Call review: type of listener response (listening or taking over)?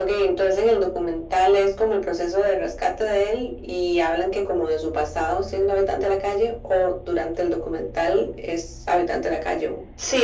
taking over